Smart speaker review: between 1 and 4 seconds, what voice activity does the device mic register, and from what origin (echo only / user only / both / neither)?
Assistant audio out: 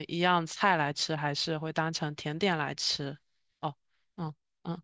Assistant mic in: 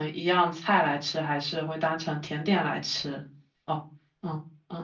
echo only